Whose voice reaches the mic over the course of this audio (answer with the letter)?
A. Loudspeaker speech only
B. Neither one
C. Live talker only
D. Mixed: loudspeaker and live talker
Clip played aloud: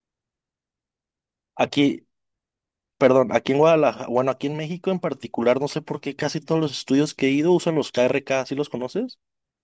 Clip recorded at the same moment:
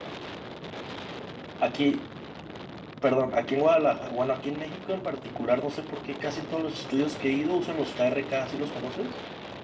A